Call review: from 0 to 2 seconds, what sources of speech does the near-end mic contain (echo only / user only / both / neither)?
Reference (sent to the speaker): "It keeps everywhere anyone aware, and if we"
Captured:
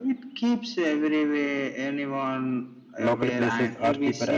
echo only